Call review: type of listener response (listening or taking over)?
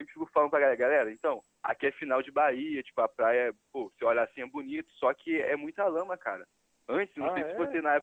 listening